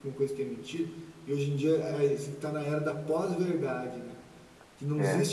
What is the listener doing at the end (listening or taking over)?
listening